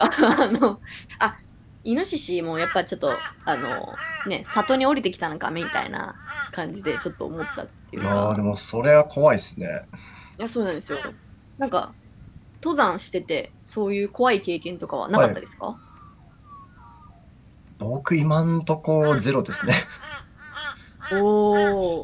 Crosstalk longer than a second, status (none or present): none